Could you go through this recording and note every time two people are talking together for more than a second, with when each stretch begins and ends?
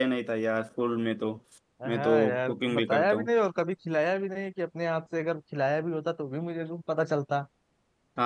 1.9-3.3

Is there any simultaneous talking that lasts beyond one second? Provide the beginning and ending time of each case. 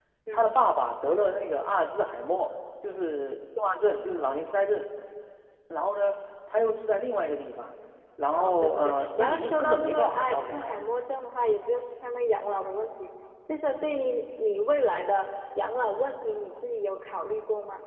8.3-10.8

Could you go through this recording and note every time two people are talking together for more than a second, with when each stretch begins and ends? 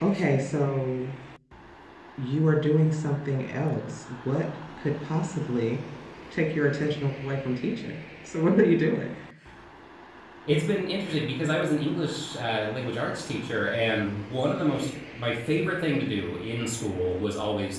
none

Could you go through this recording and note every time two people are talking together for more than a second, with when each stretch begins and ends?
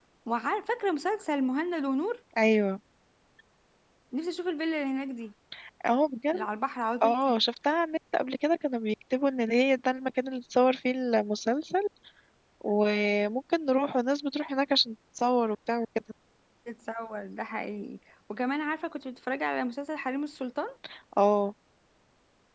none

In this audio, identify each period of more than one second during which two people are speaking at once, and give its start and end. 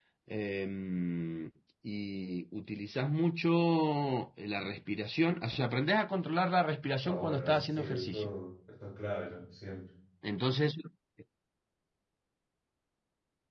7.0-8.3

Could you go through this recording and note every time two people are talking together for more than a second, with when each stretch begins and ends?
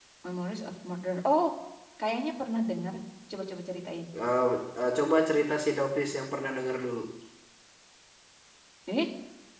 none

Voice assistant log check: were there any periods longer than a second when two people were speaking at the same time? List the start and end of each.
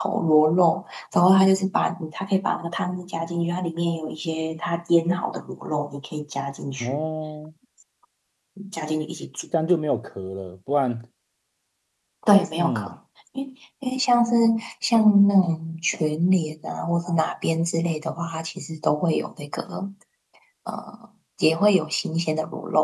none

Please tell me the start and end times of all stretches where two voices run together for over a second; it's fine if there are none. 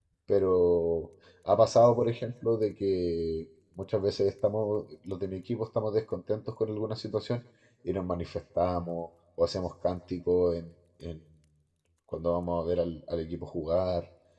none

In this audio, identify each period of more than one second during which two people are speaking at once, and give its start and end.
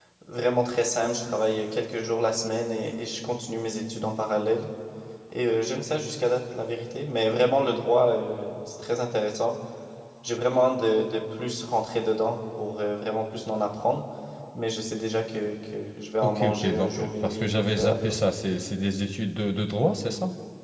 16.2-18.2

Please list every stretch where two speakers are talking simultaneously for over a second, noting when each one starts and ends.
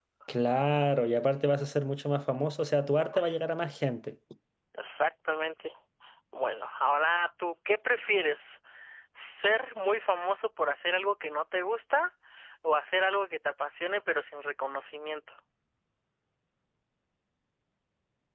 none

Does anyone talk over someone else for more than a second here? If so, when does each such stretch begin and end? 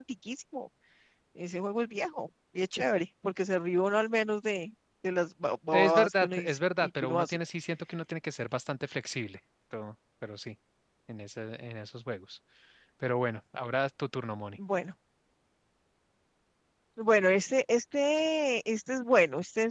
5.7-7.4

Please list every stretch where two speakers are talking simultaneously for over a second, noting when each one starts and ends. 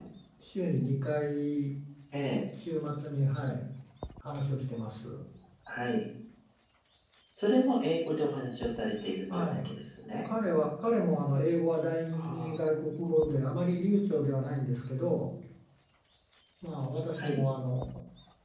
none

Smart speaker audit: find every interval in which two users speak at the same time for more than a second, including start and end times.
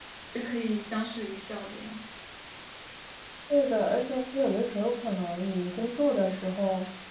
none

